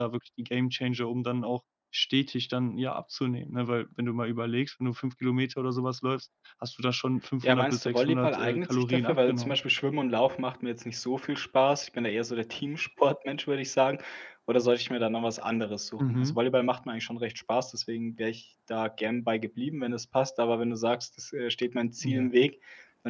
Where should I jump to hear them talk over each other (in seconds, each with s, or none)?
7.4 s